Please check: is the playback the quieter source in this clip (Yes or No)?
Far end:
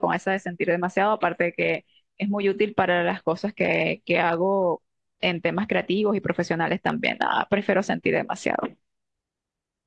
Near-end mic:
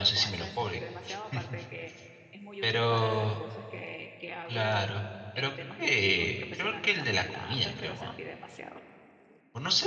Yes